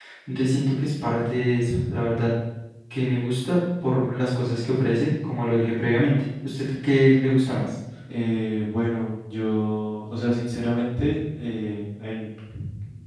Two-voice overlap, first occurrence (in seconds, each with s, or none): none